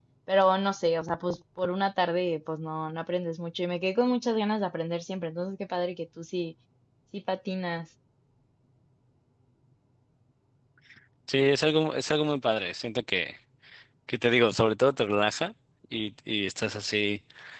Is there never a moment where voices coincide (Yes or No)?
Yes